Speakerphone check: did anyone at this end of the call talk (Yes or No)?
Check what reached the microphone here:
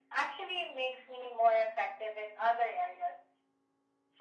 No